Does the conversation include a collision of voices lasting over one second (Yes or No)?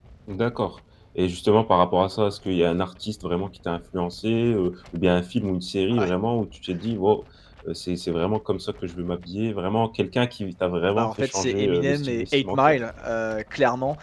Yes